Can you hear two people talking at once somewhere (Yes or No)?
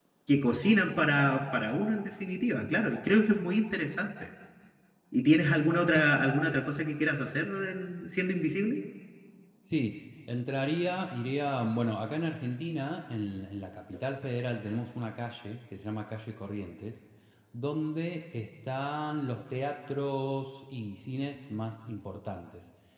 No